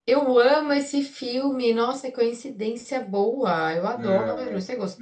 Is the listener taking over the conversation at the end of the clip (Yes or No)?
Yes